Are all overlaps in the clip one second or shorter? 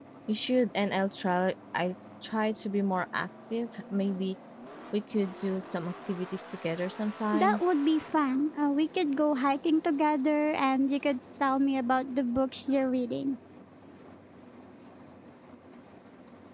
Yes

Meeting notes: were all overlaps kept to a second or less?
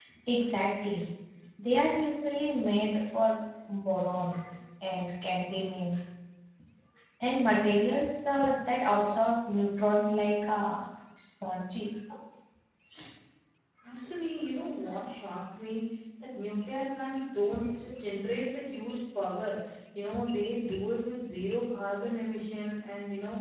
Yes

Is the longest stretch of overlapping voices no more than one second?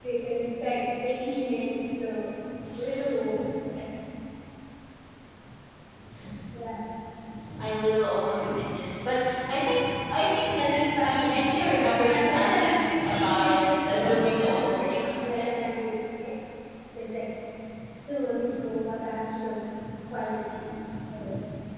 No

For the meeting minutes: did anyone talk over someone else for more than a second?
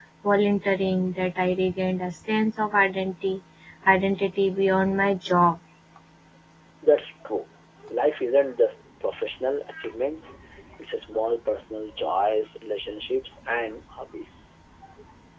No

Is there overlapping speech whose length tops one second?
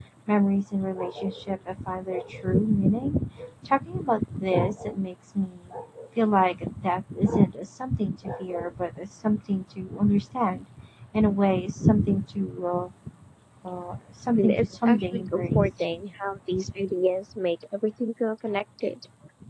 Yes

